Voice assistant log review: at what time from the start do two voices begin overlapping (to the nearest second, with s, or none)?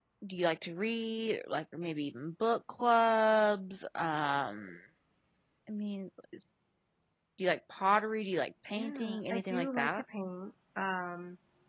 9 s